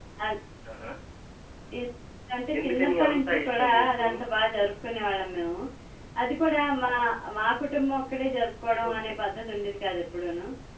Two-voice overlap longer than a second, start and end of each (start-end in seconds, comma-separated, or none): 2.6-4.1